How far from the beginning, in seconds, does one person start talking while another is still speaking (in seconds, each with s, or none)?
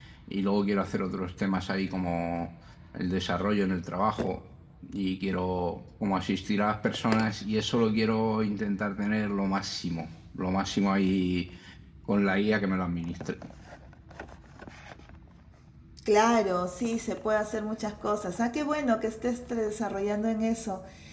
none